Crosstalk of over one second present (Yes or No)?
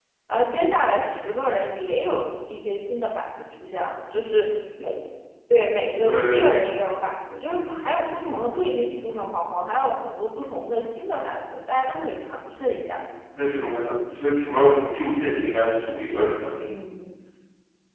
No